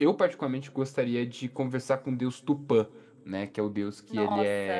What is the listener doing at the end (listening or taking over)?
listening